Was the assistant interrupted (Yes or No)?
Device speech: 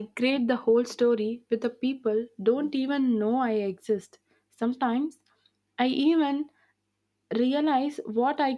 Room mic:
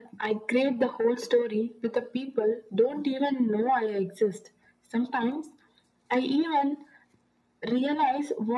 No